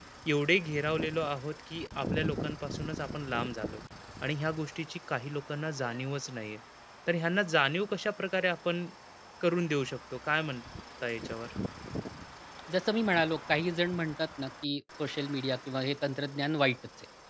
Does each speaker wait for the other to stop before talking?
Yes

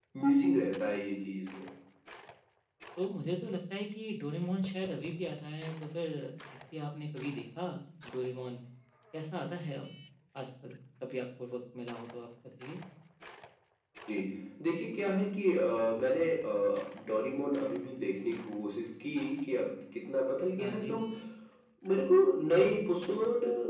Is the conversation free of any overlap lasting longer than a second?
Yes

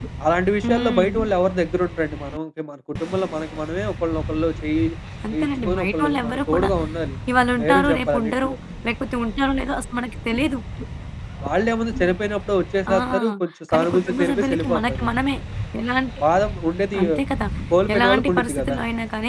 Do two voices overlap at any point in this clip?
Yes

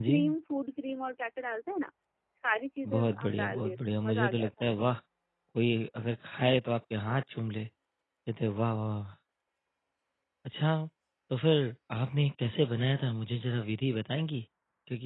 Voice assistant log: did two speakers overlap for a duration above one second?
Yes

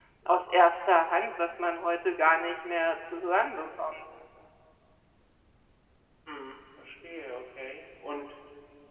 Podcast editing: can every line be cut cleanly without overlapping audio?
Yes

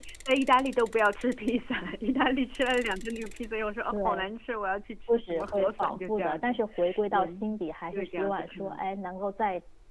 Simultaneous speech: Yes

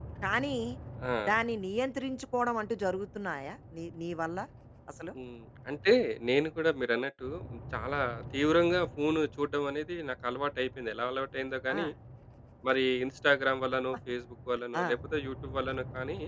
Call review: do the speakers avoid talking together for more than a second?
Yes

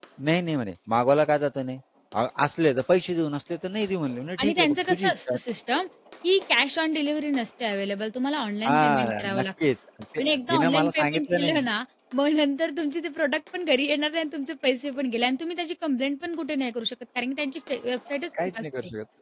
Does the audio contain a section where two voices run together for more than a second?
Yes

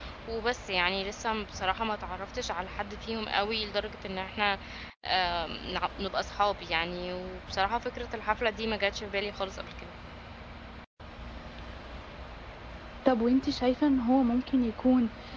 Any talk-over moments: No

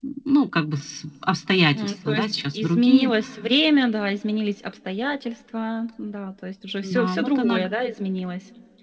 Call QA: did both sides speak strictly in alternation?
No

